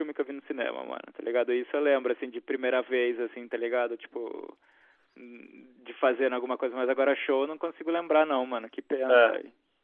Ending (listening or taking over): taking over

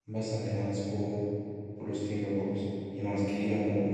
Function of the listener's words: listening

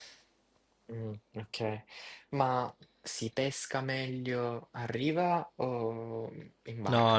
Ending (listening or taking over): taking over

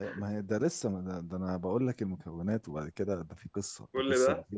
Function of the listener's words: listening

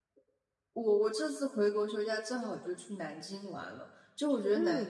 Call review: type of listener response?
listening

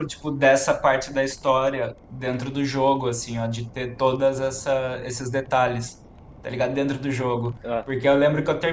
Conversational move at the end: listening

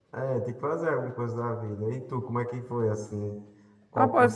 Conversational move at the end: taking over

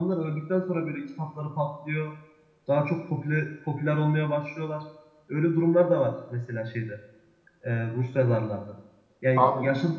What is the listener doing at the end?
listening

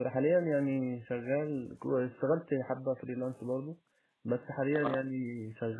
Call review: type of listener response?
listening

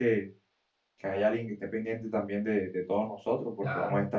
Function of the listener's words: listening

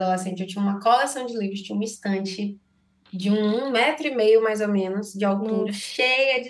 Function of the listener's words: listening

